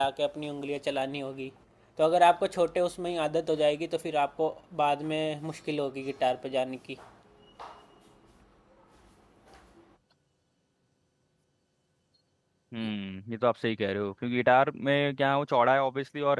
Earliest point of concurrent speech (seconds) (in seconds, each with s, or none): none